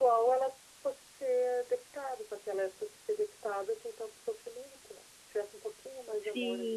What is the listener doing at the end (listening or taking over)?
taking over